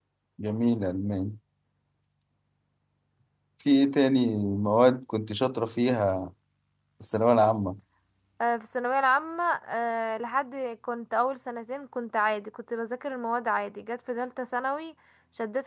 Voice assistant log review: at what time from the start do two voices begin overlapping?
none

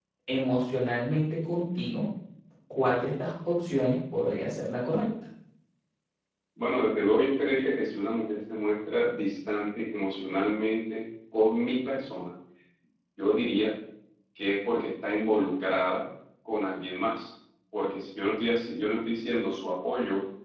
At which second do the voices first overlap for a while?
none

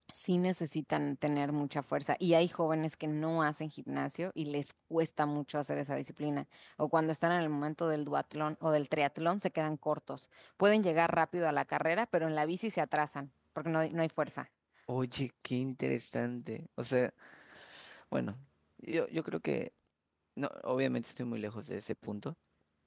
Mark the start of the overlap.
none

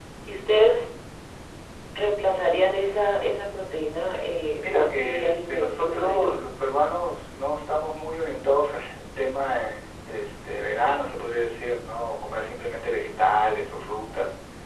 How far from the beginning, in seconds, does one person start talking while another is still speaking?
5 s

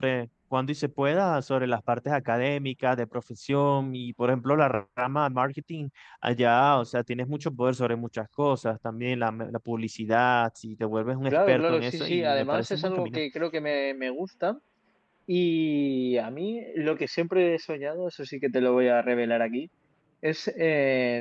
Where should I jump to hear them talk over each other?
11 s

